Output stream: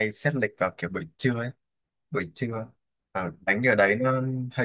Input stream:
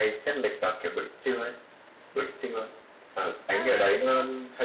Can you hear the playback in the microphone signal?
Yes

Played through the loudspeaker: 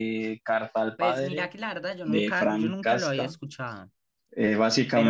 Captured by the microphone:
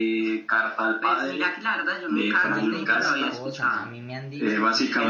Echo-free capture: No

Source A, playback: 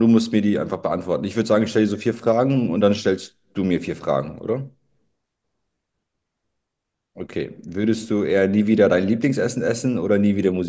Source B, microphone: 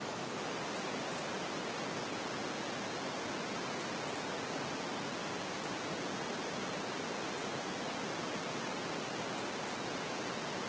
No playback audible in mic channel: Yes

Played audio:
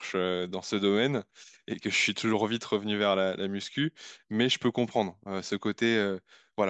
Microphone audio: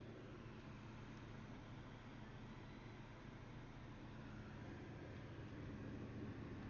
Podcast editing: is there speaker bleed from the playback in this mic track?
No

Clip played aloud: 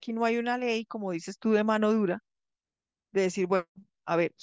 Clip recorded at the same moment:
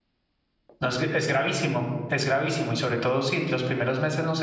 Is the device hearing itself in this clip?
No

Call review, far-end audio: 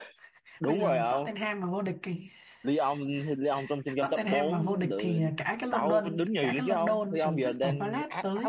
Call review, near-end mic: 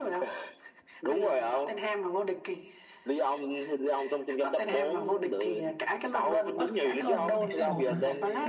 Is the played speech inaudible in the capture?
No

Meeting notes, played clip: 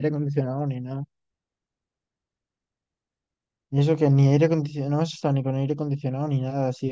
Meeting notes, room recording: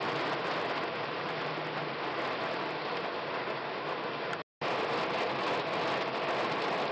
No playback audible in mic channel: Yes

